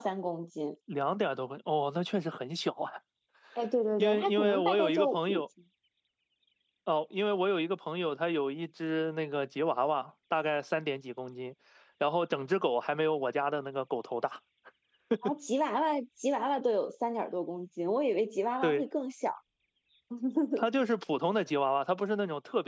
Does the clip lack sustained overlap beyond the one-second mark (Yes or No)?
No